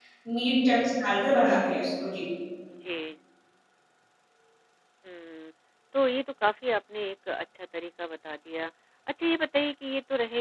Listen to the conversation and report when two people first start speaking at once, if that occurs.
none

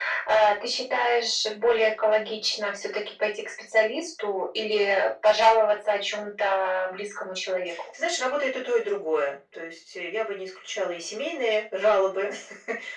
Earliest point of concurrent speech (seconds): none

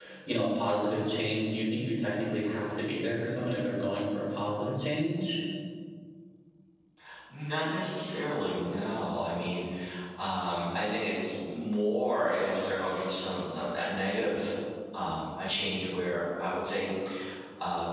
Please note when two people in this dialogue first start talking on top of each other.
none

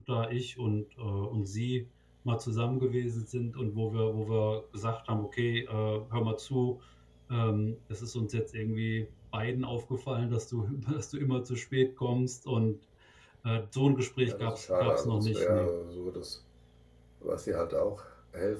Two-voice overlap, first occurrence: 14.2 s

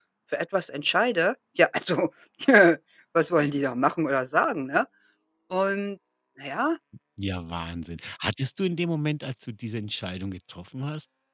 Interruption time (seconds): none

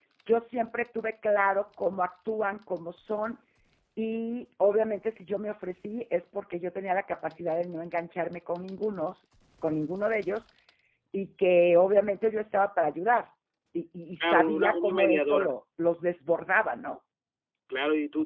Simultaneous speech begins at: 14.2 s

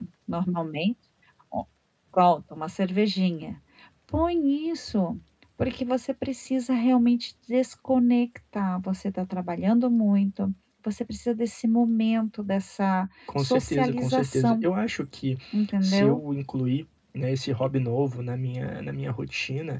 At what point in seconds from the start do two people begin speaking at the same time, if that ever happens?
13.4 s

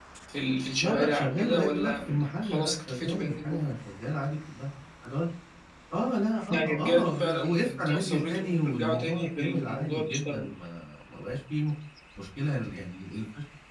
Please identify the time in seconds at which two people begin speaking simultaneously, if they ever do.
0.8 s

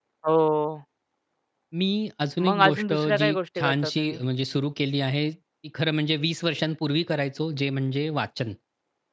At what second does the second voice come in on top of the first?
2.4 s

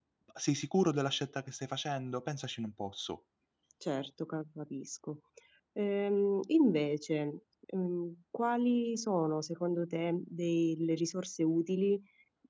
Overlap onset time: none

